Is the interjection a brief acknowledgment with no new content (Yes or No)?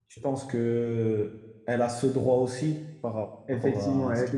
No